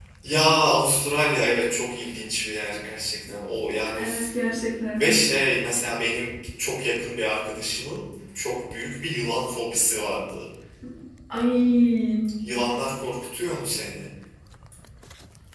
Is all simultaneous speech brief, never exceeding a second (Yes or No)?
Yes